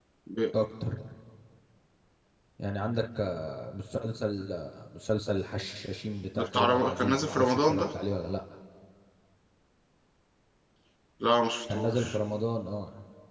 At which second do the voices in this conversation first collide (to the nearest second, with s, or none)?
7 s